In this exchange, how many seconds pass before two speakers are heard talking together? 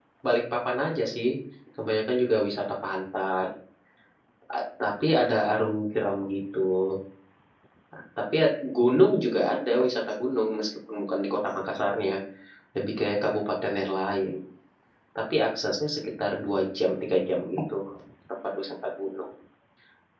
none

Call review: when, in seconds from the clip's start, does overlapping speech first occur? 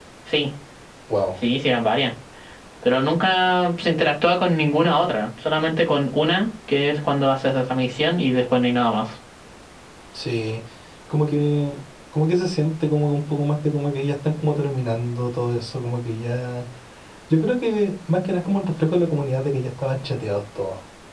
none

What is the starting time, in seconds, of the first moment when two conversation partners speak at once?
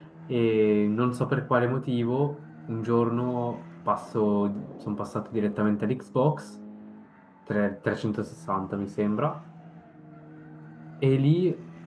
none

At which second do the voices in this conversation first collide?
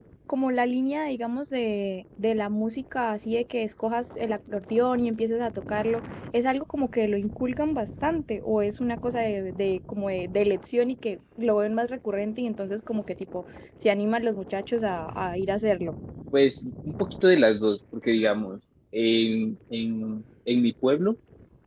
none

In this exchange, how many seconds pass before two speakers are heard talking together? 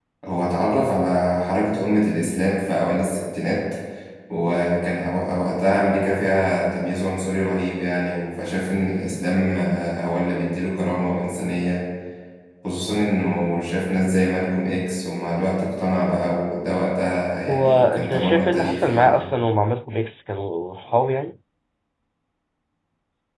17.5 s

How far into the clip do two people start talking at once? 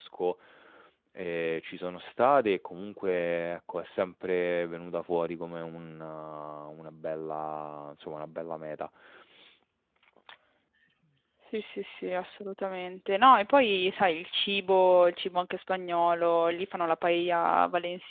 none

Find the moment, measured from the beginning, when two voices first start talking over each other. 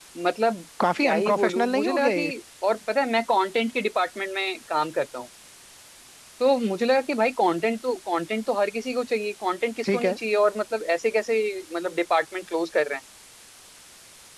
1.0 s

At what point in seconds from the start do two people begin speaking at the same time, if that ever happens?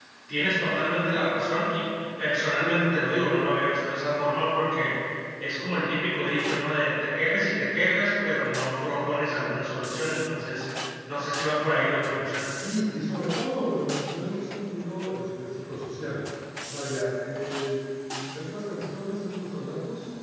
none

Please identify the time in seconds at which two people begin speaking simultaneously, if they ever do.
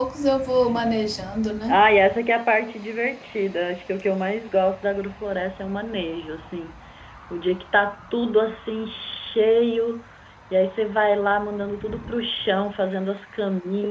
none

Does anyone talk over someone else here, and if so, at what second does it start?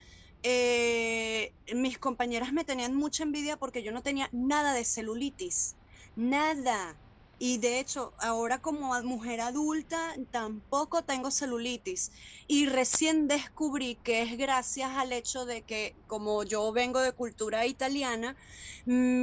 none

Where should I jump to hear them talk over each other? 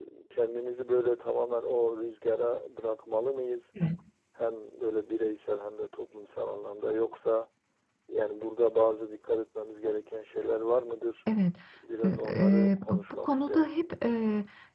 12.0 s

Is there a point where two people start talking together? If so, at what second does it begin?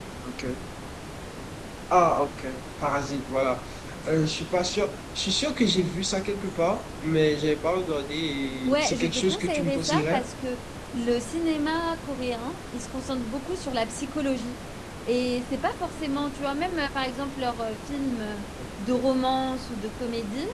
8.5 s

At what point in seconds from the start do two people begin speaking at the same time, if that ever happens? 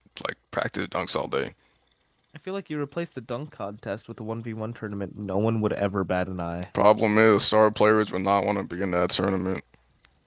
none

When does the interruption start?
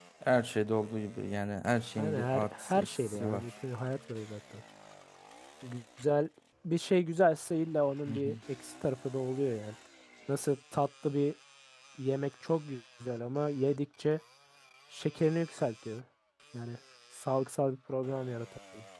2.0 s

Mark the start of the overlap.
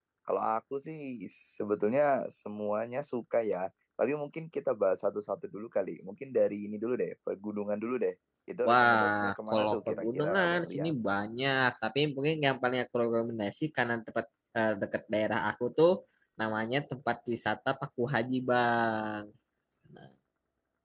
8.7 s

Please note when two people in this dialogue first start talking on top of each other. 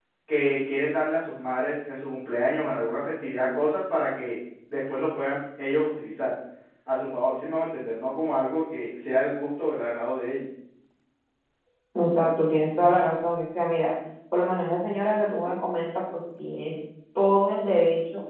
none

